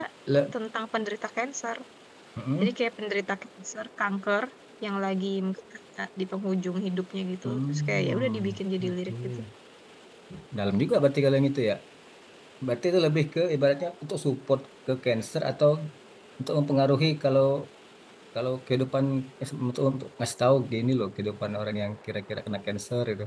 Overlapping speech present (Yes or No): Yes